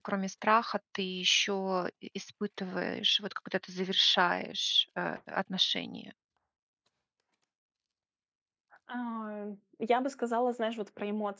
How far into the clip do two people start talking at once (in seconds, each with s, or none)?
none